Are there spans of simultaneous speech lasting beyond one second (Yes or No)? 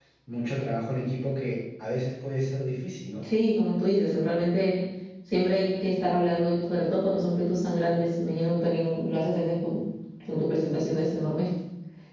No